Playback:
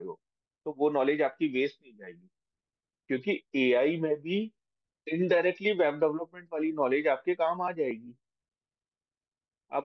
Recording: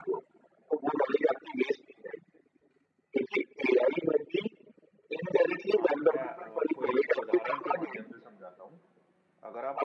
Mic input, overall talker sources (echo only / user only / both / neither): both